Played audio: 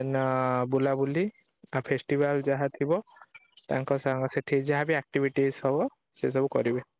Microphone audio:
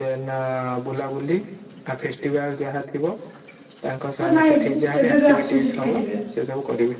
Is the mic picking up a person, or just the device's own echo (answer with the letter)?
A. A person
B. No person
A